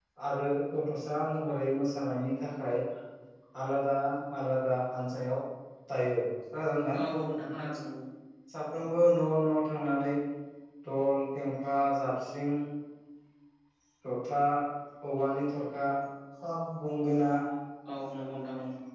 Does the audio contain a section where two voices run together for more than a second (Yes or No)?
No